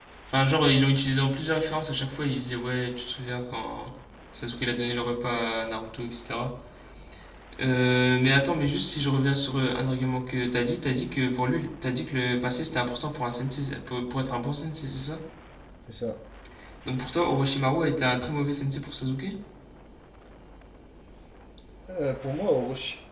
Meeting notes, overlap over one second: none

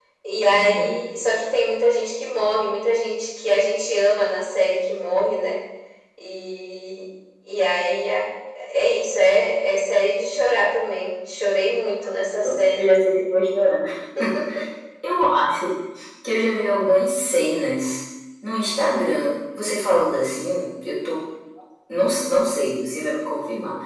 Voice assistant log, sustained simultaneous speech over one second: none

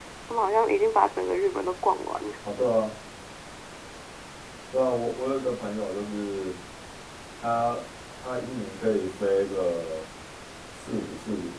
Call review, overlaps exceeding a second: none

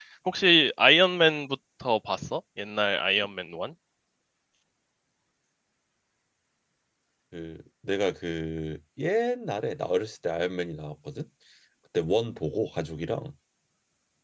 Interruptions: none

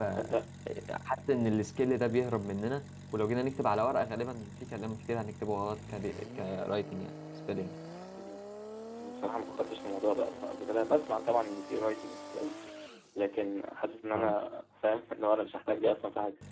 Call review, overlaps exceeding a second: none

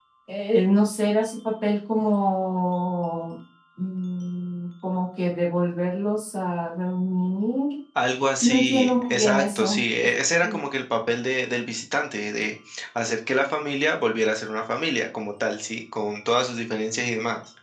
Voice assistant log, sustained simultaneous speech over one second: present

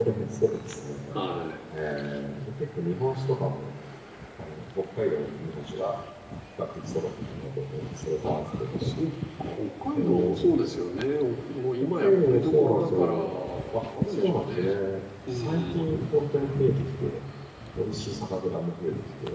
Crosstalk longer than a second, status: present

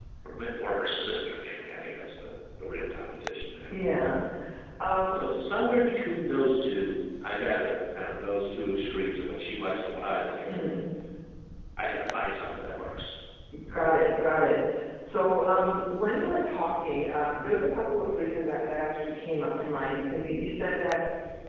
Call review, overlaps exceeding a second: none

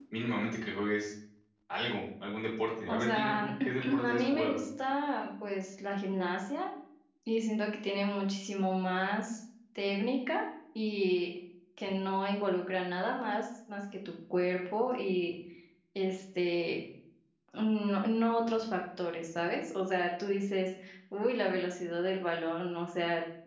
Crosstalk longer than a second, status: present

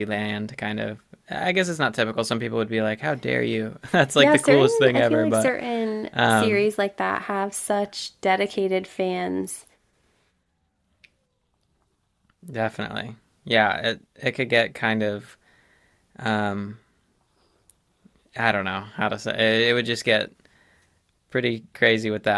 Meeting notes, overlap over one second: present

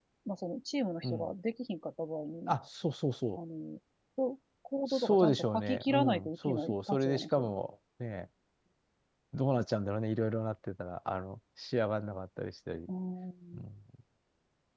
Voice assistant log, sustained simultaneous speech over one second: present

